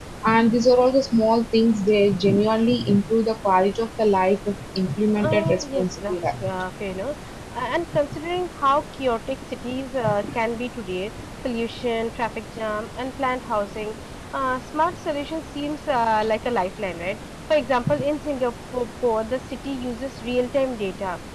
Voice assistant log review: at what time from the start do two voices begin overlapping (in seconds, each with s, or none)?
5.2 s